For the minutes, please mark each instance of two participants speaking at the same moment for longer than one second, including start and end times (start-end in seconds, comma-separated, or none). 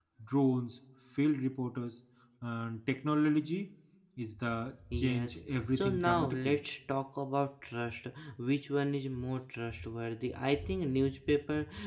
5.0-6.6